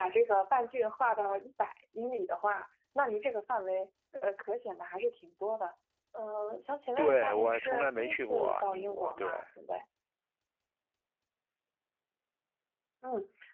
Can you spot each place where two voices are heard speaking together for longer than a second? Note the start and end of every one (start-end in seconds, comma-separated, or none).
7.0-9.3